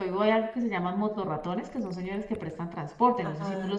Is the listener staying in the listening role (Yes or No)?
No